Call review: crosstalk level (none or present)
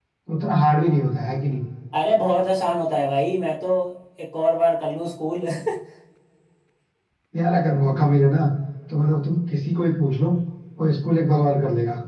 none